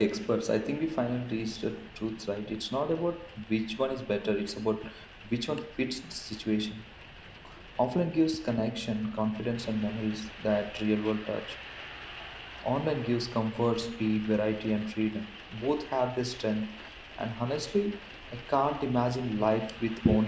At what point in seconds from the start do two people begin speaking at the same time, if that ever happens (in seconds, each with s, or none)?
none